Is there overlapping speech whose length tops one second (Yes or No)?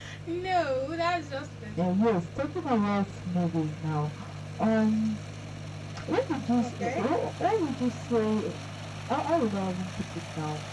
No